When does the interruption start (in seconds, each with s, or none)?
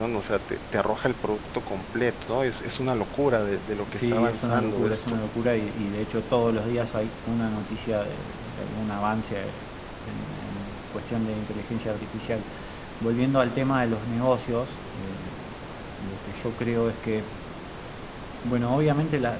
3.9 s